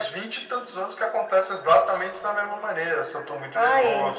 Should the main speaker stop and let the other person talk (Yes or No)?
No